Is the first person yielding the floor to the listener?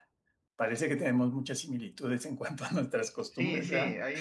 Yes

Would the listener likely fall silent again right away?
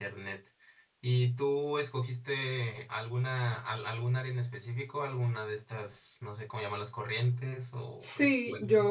No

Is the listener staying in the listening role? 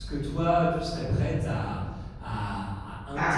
Yes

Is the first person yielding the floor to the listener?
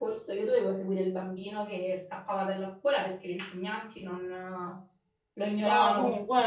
Yes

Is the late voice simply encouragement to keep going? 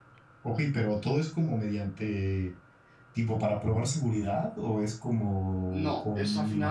No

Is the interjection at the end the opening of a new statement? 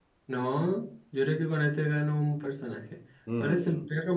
No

